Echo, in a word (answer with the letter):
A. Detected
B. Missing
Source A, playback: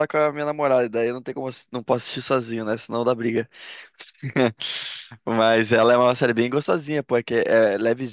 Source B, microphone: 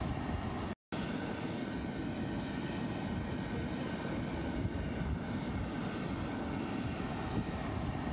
B